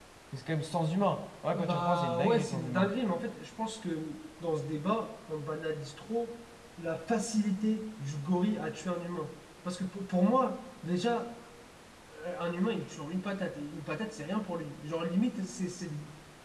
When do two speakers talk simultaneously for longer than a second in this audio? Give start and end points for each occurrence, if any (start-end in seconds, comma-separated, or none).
1.5-2.9